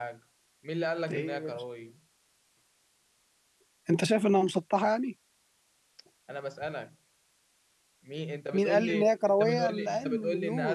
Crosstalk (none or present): present